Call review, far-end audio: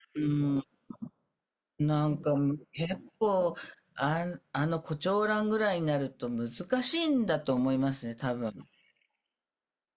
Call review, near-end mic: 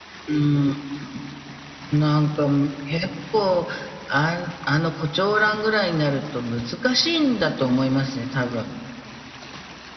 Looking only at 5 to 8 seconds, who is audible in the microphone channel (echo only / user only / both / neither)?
echo only